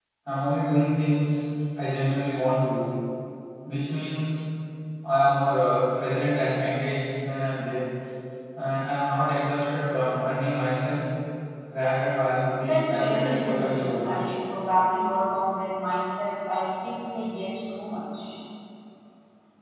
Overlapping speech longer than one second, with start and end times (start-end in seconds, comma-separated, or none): 12.6-14.0